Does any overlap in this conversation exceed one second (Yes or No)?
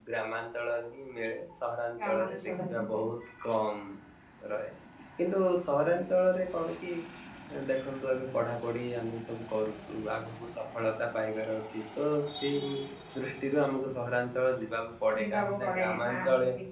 Yes